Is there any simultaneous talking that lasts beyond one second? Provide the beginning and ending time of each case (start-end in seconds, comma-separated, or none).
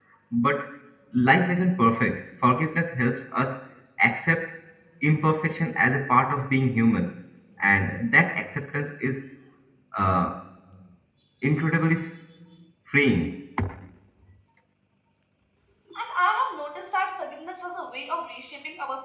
none